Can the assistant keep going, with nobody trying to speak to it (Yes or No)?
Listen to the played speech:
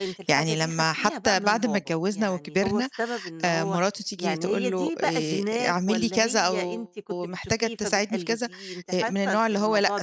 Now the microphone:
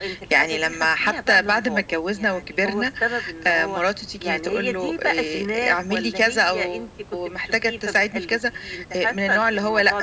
Yes